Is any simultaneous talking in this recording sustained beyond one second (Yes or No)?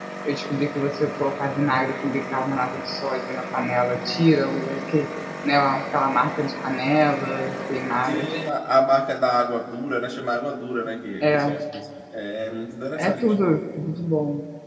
No